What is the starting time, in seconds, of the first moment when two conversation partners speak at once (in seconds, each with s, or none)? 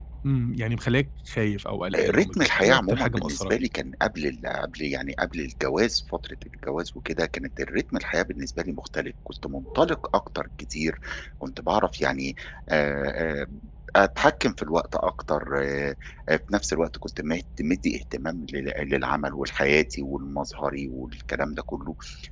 1.9 s